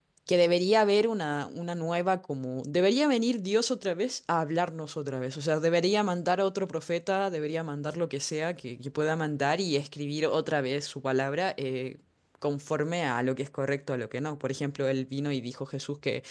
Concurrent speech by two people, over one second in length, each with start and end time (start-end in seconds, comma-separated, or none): none